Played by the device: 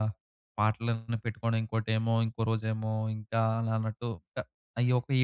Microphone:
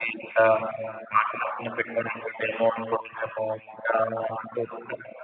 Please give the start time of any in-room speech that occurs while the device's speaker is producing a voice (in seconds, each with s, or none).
none